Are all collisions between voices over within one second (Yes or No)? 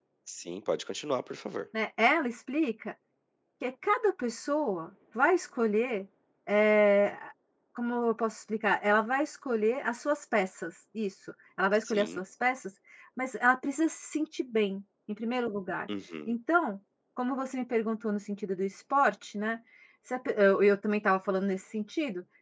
Yes